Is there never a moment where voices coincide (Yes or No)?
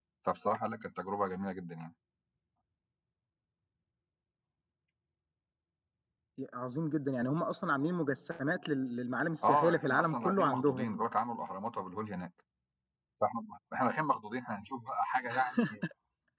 No